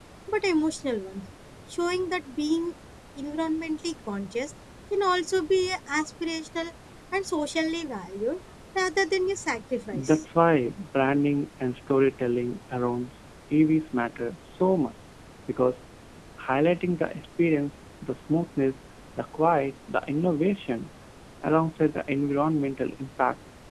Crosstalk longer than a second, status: none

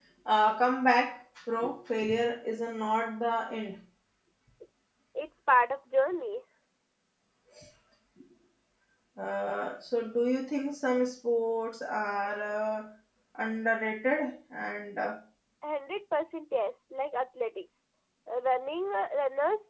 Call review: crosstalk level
none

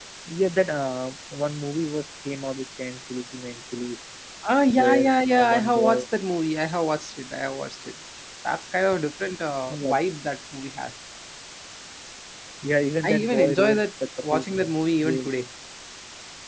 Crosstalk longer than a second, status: present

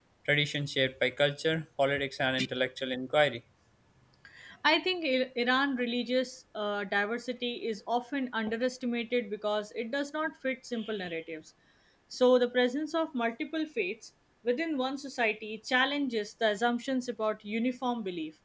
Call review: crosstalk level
none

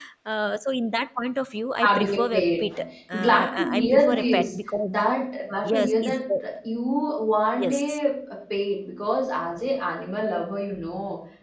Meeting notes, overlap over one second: present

